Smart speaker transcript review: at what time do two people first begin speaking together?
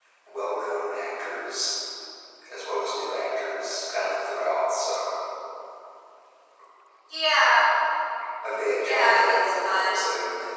8.8 s

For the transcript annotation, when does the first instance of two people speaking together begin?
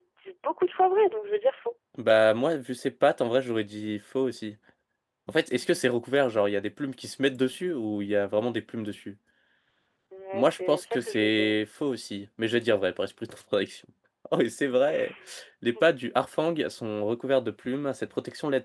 10.3 s

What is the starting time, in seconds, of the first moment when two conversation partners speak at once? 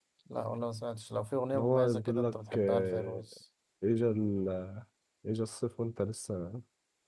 1.5 s

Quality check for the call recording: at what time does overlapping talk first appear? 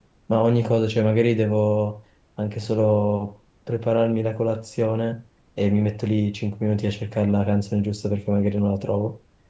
none

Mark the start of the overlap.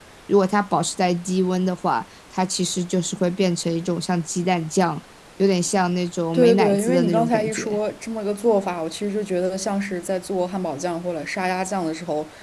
6.3 s

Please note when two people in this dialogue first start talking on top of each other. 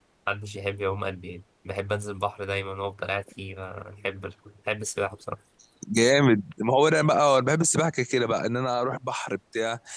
none

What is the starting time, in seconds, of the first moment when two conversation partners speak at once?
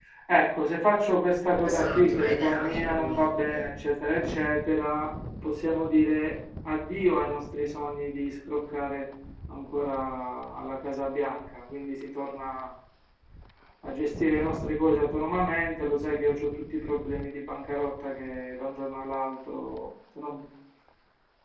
1.4 s

